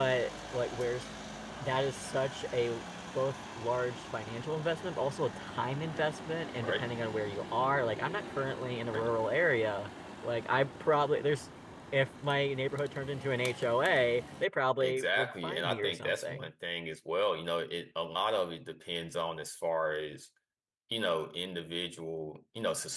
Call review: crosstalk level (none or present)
present